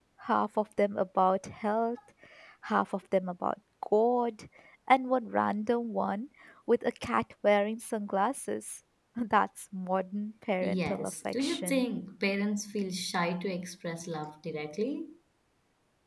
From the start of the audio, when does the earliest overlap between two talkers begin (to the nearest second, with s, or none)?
11 s